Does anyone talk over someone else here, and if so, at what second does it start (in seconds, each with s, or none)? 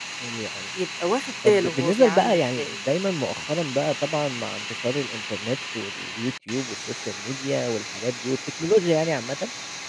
1.4 s